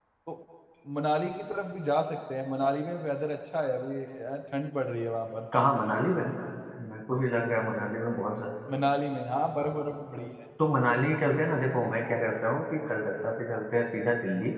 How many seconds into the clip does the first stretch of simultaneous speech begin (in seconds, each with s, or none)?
none